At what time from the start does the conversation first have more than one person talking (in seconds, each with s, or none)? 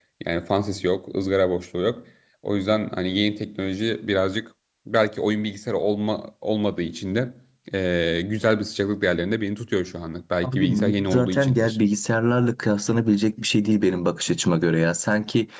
10.4 s